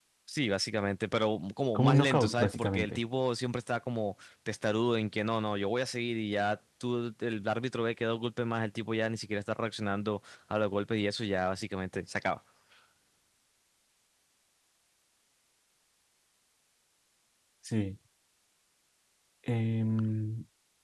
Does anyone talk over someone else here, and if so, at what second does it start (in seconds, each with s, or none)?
1.7 s